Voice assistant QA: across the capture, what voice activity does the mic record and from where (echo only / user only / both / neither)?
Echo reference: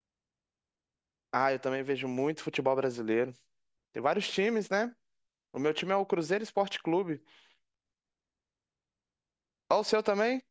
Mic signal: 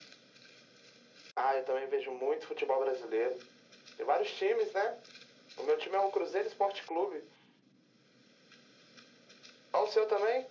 echo only